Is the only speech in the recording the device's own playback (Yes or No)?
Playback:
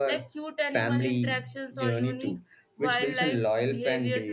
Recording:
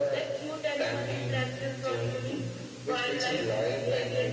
Yes